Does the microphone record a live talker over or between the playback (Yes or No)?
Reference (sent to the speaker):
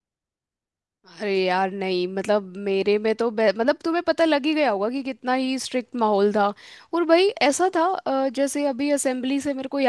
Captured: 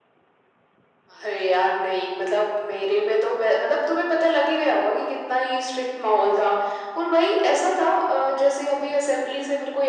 No